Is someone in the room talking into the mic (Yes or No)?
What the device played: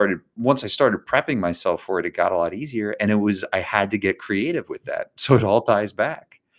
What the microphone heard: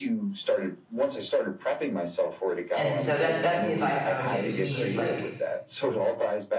Yes